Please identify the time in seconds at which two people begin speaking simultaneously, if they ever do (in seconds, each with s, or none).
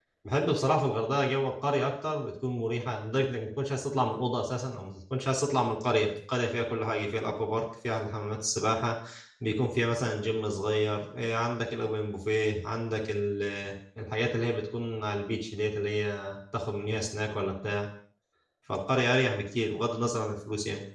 none